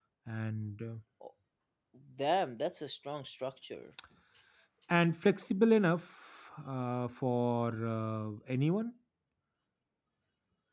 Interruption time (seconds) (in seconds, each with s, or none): none